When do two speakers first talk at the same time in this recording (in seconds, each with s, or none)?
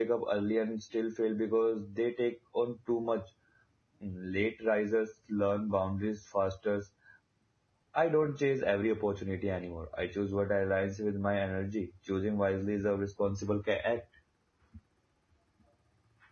none